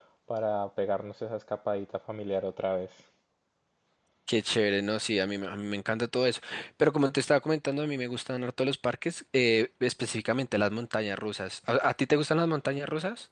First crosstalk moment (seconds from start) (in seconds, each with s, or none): none